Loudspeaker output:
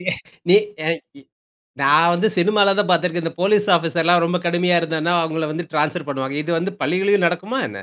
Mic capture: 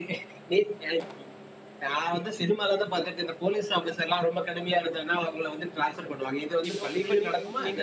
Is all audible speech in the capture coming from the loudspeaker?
No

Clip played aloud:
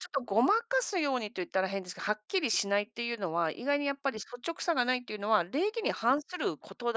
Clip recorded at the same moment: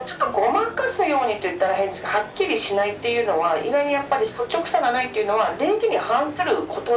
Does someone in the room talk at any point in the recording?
No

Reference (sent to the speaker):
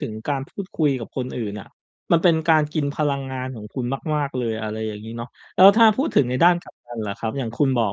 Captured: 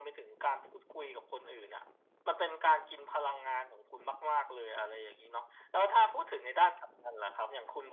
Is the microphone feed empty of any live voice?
Yes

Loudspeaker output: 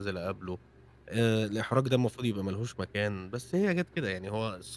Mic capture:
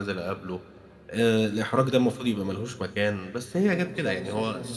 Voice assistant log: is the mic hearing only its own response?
No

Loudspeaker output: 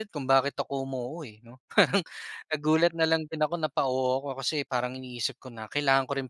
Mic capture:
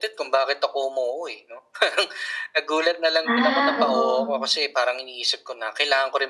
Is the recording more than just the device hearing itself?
Yes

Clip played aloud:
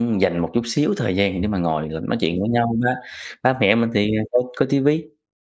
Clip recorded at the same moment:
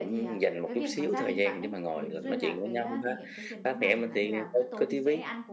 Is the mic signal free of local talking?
No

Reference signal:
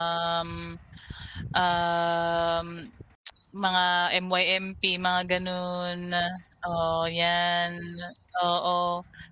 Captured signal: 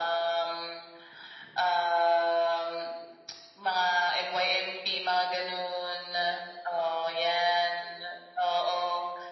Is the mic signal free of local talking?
Yes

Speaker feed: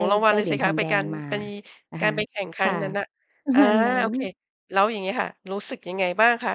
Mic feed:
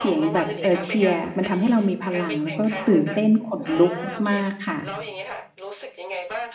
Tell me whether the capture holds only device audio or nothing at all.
No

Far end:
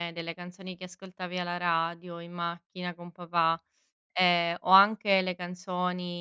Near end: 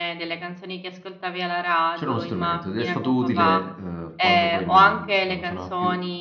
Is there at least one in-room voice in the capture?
Yes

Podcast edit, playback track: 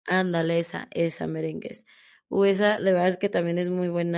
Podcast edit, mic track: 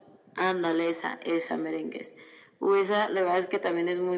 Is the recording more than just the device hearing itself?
No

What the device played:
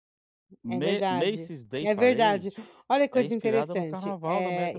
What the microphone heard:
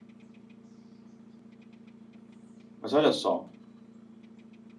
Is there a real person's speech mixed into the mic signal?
Yes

